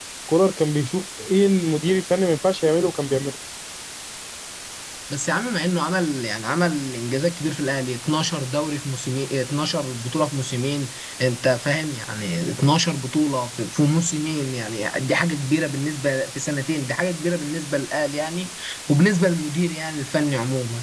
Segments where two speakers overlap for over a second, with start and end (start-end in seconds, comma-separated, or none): none